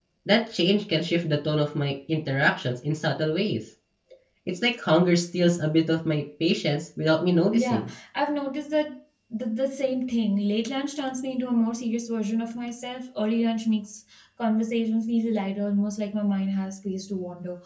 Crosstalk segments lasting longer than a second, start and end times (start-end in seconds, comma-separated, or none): none